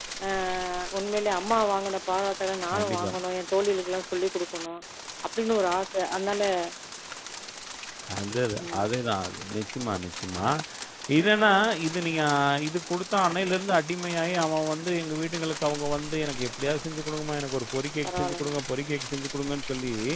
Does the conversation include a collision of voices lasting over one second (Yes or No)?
No